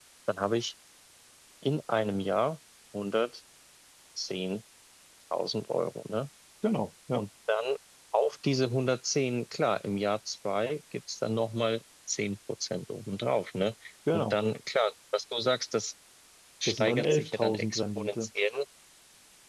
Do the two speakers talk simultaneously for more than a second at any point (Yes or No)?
Yes